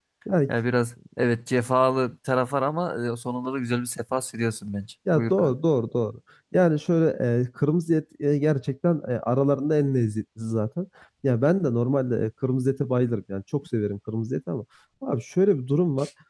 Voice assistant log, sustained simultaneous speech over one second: none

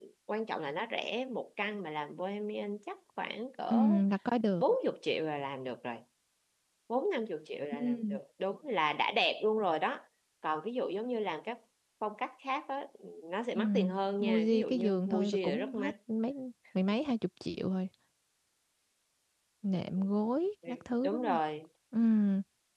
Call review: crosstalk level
present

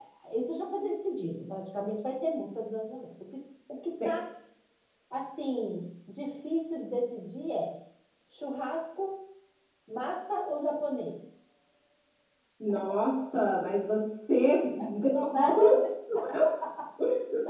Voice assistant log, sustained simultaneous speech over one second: none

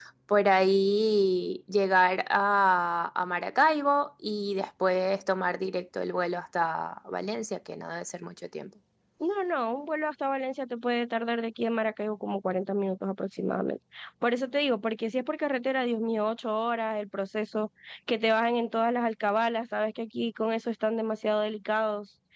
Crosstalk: none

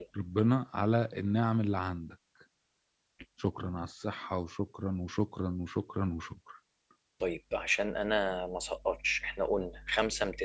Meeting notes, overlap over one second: none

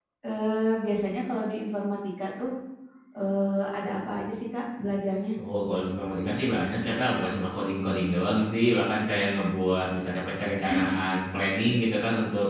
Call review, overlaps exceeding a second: none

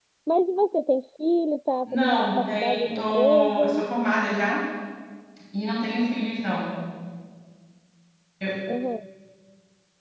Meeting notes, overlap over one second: present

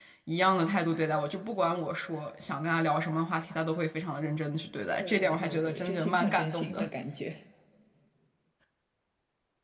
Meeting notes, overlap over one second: present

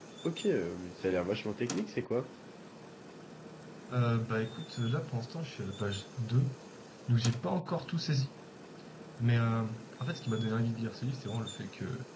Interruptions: none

